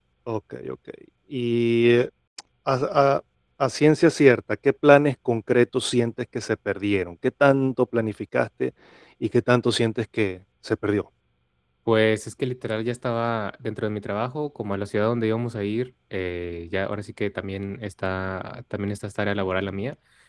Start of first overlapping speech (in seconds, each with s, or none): none